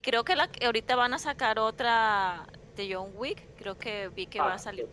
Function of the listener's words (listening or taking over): taking over